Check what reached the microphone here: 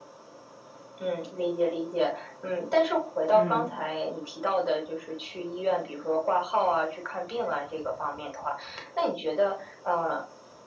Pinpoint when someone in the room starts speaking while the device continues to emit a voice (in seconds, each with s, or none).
3.3 s